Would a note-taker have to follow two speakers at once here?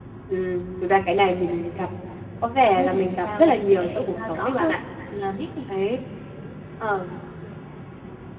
Yes, from 2.8 s

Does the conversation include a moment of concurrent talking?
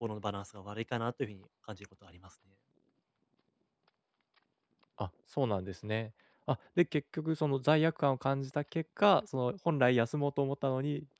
No

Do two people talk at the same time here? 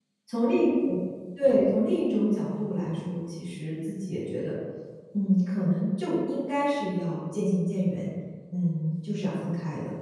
No

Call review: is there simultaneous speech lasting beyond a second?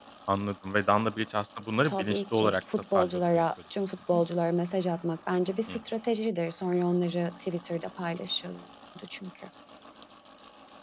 Yes, from 1.9 s

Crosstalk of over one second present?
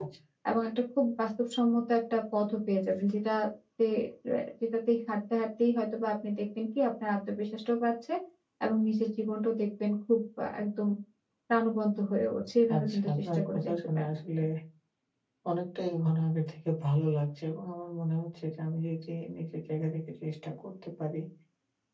Yes, from 12.7 s

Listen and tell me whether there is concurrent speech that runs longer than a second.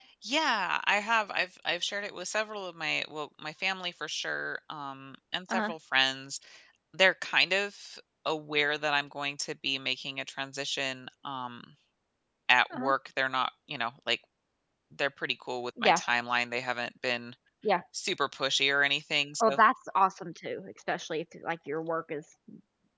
No

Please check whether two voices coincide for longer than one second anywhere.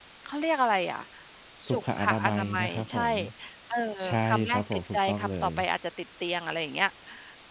Yes, from 1.7 s

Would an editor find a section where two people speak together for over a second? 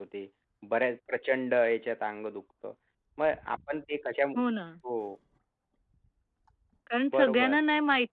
No

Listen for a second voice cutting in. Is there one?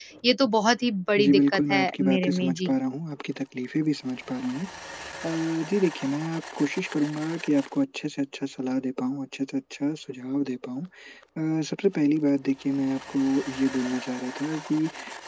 Yes, from 1.2 s

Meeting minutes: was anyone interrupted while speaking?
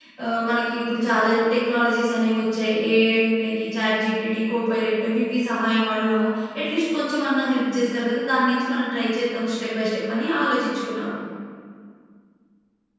No

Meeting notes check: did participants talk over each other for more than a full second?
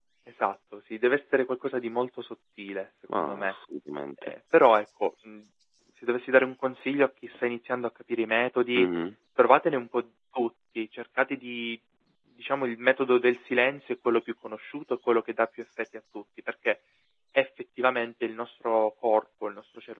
No

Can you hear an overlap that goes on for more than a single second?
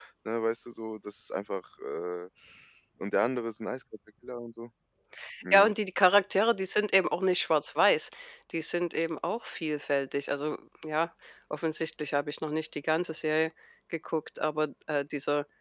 No

